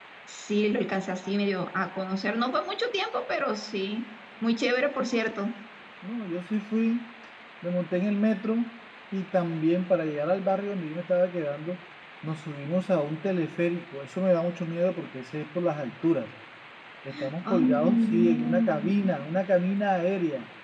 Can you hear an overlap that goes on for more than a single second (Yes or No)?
Yes